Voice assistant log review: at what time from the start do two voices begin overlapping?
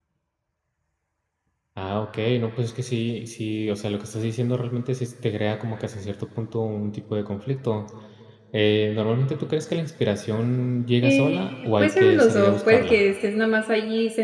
11.0 s

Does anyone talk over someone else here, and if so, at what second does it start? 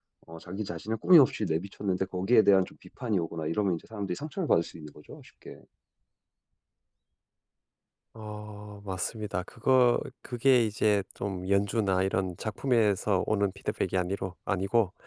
none

